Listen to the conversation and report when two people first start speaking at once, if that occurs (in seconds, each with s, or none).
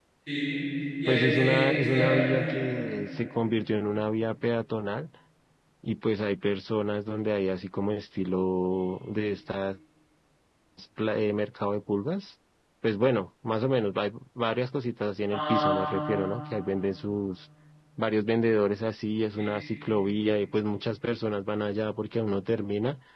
1.1 s